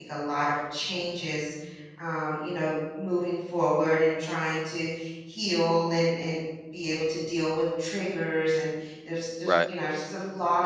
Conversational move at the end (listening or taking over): listening